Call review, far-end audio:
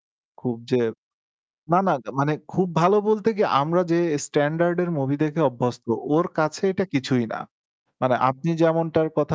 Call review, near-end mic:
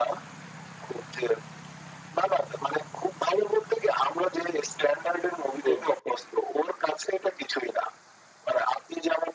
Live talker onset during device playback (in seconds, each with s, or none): 5.6 s